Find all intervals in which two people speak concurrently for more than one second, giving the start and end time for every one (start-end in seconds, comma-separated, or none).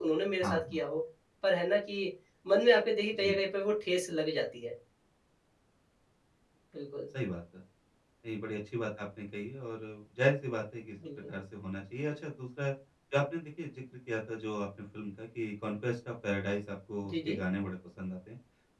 none